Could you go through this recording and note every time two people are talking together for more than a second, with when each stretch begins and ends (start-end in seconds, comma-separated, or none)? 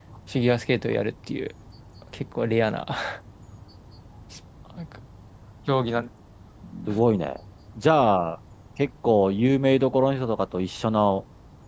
none